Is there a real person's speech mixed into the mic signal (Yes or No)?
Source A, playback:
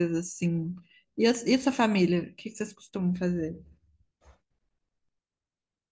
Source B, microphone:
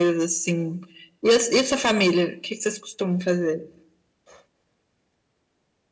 No